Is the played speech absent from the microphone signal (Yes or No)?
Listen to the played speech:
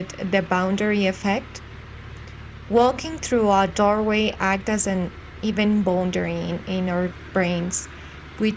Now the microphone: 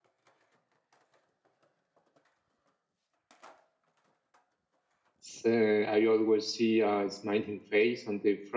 Yes